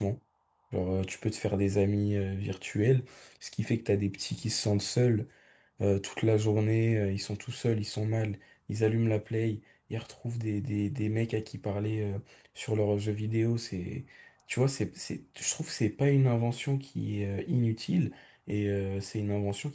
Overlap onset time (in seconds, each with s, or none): none